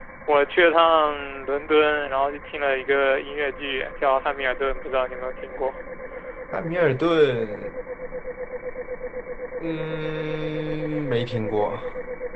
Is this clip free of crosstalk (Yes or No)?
Yes